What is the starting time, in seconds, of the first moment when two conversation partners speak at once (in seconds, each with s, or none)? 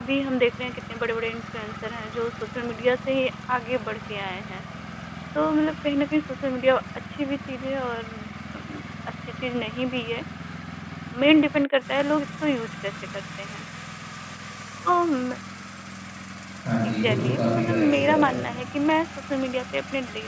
16.8 s